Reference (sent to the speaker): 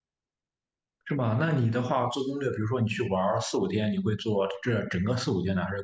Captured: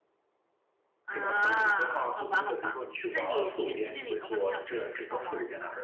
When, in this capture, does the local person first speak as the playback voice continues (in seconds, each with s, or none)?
1.1 s